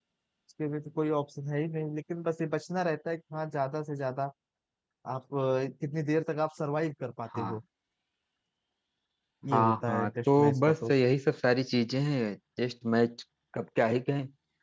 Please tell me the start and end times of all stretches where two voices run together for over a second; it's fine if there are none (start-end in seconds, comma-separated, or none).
9.5-10.9